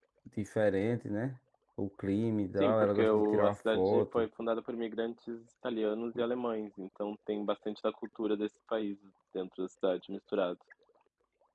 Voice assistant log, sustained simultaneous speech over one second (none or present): present